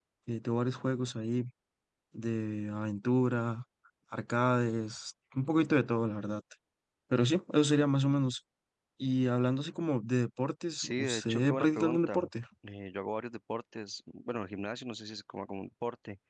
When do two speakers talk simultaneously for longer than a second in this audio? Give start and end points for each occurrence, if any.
10.8-12.2

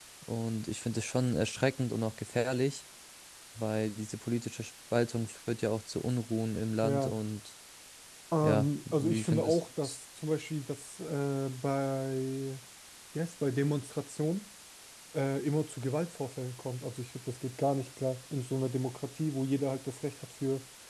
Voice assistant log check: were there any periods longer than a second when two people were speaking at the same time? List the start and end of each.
8.4-10.0

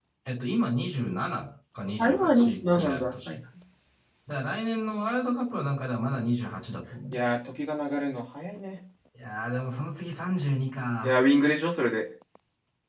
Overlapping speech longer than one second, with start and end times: 2.0-3.4

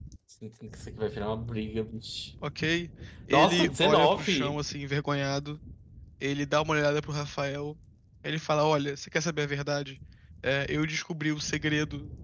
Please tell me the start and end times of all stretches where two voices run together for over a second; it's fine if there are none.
3.3-4.5

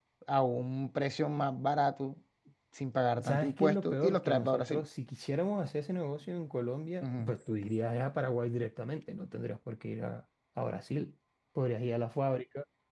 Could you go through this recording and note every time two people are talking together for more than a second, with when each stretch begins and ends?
3.2-4.8

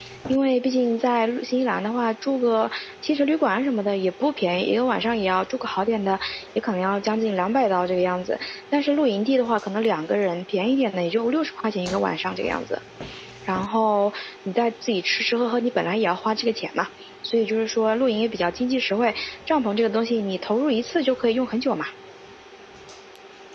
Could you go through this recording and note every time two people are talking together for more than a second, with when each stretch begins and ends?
none

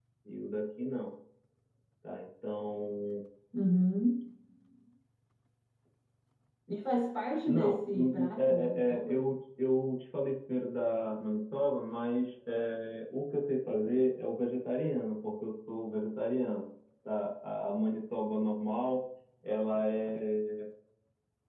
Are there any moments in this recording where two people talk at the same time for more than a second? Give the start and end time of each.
7.5-9.2

